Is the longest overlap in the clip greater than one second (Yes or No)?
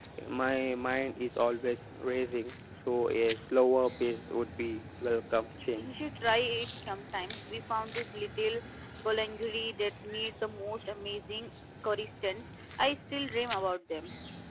No